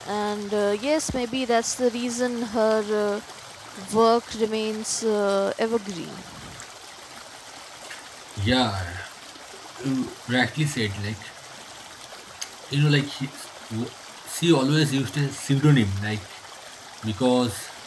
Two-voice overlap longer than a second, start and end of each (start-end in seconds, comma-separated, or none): none